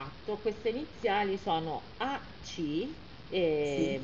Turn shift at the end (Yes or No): No